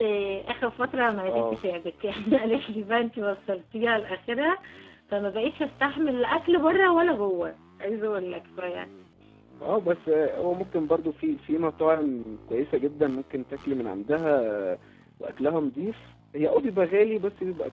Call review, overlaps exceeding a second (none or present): none